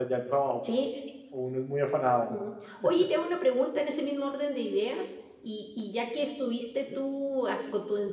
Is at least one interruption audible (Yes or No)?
No